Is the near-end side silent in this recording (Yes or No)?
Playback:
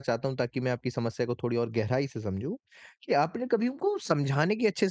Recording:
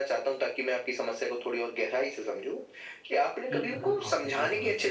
No